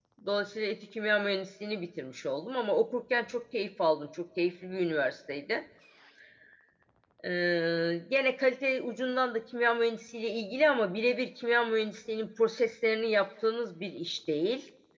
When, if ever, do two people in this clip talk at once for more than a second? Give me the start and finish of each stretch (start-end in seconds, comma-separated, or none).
none